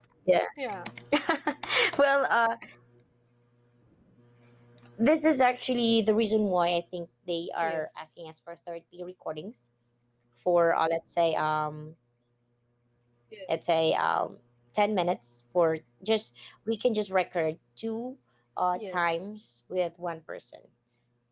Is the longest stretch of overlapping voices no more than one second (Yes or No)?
Yes